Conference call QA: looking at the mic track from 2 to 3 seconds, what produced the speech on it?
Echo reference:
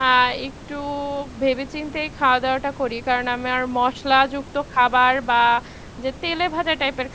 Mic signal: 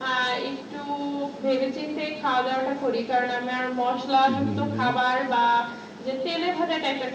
echo only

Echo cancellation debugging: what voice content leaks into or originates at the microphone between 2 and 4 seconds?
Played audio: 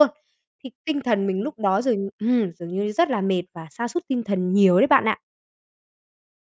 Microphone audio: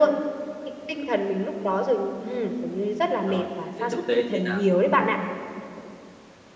both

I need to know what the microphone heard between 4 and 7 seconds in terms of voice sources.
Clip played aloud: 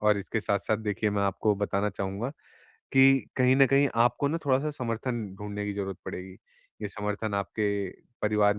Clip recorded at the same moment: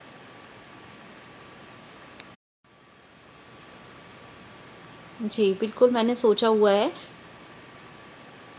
user only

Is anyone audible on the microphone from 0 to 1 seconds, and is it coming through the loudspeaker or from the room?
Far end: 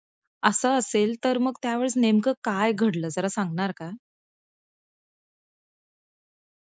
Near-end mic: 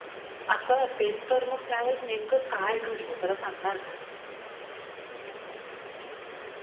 echo only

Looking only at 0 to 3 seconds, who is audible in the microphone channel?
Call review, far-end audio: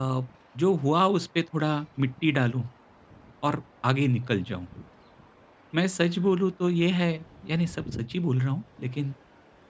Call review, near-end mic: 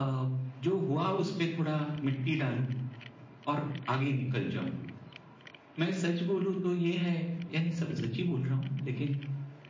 echo only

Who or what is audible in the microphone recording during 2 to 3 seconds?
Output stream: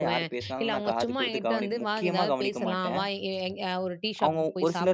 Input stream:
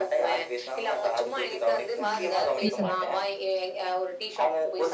both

